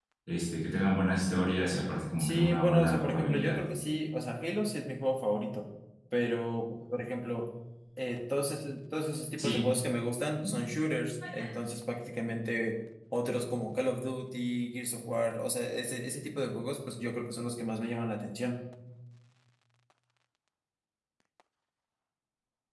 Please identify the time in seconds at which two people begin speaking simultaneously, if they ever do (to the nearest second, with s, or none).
2 s